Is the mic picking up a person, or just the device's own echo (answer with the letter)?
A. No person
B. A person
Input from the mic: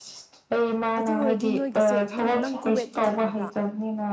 B